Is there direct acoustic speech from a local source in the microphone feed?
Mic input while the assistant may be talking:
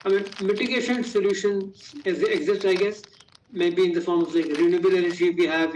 No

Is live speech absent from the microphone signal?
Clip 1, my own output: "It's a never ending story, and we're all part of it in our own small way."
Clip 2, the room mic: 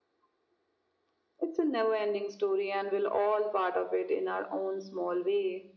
Yes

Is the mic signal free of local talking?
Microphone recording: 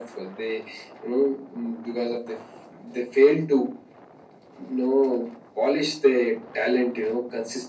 Yes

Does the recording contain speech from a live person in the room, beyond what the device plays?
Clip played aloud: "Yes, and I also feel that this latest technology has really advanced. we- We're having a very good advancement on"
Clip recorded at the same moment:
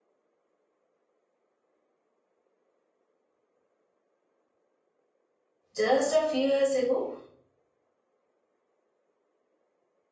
Yes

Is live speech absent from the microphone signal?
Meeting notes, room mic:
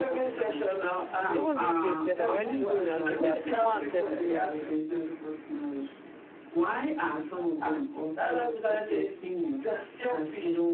No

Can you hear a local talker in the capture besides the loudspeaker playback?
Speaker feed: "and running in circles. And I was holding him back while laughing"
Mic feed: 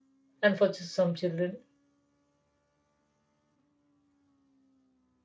Yes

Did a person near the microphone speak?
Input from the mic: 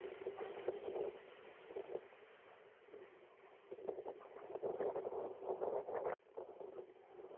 No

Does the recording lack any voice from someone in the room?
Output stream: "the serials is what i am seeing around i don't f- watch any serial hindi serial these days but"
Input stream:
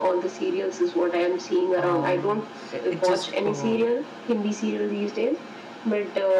No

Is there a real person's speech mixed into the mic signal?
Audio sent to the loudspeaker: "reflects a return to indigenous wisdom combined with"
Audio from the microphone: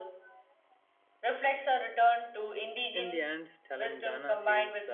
Yes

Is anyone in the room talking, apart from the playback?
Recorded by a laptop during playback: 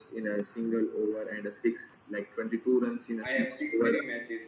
Yes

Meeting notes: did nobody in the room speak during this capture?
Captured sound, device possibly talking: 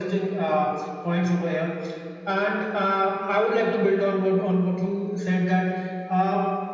Yes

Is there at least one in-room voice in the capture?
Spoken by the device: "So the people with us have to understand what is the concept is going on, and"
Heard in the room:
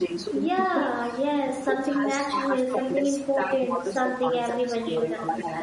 Yes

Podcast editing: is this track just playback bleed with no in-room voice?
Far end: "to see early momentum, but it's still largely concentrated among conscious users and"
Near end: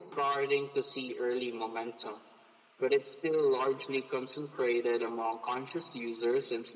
Yes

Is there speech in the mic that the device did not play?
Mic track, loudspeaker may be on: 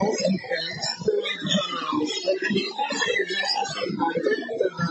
No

